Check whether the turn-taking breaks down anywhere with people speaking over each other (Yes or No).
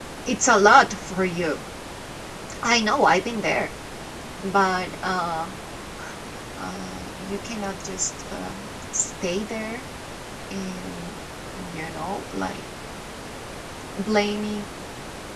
No